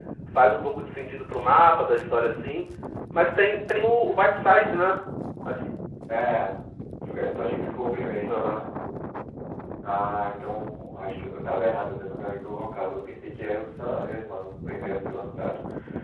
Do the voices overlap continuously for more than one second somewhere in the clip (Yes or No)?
No